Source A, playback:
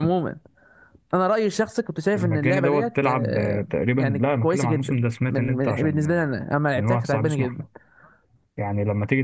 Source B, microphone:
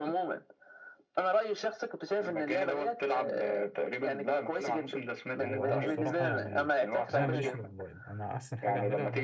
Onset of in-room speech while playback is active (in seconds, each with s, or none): 5.4 s